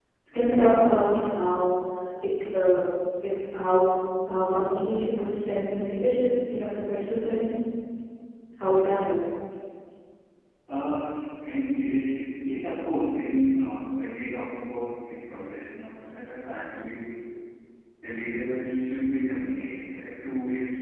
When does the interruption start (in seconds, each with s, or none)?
none